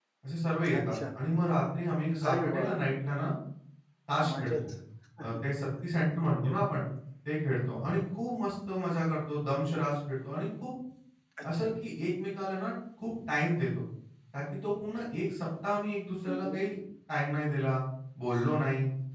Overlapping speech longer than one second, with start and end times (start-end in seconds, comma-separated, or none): none